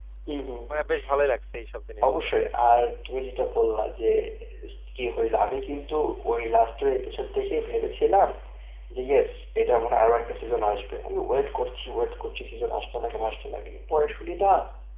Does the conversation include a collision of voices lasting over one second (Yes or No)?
No